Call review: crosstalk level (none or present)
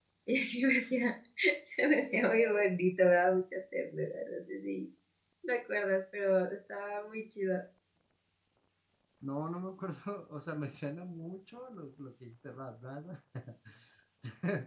none